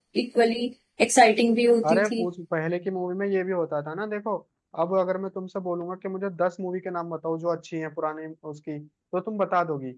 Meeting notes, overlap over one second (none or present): none